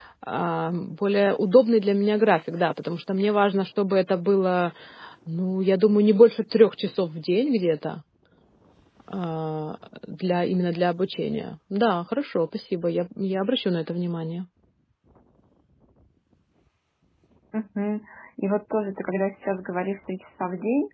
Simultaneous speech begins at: none

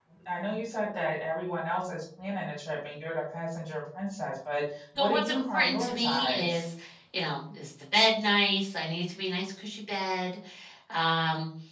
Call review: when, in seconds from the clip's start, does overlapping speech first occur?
5.0 s

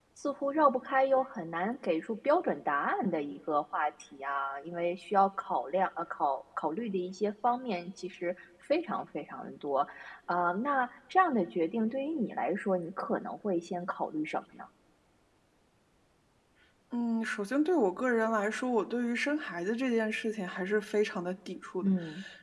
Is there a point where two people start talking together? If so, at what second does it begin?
none

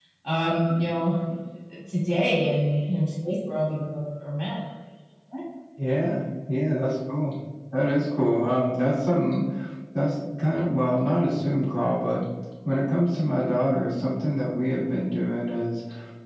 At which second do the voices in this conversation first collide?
none

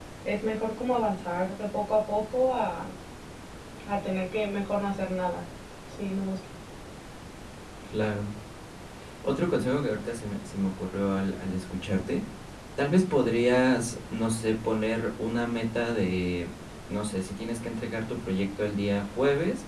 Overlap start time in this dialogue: none

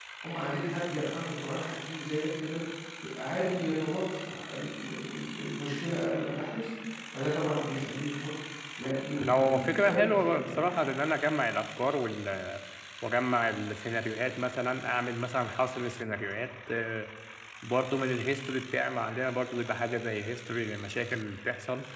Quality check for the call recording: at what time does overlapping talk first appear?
9.2 s

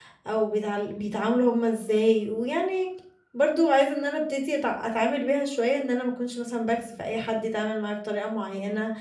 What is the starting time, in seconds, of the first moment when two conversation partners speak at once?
none

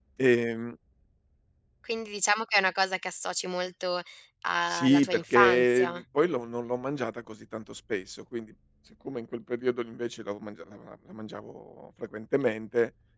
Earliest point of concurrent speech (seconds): 4.7 s

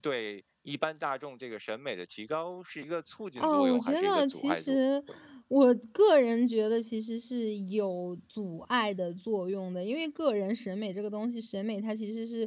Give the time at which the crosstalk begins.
3.4 s

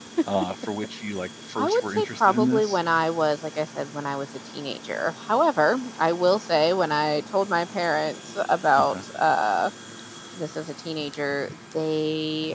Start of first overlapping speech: 1.6 s

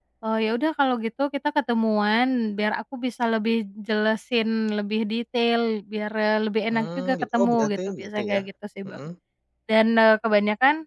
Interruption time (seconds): 6.7 s

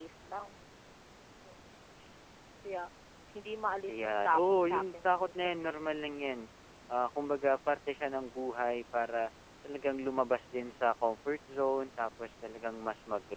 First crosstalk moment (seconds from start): 3.9 s

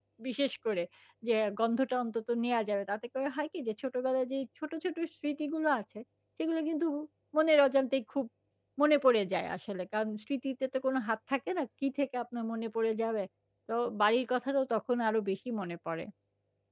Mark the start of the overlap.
none

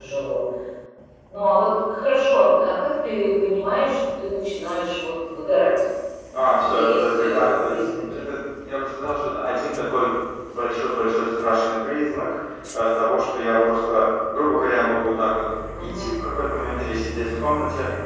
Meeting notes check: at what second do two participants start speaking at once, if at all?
6.6 s

